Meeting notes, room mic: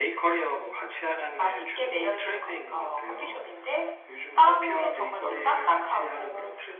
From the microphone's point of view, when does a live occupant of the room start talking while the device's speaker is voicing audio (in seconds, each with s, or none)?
none